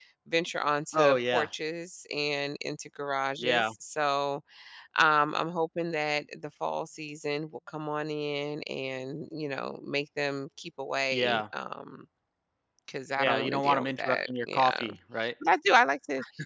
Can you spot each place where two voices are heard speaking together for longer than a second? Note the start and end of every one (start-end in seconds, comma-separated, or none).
13.2-14.8